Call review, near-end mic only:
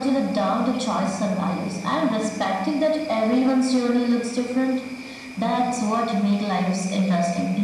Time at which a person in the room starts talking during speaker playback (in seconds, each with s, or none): none